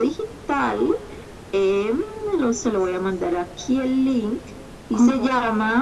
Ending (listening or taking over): listening